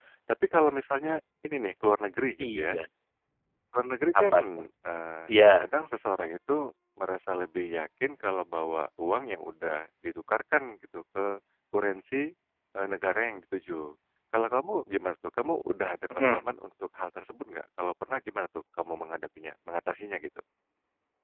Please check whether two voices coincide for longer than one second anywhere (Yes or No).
No